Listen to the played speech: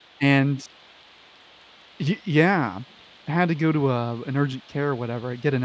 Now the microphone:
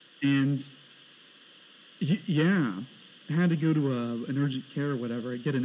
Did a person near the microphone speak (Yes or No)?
No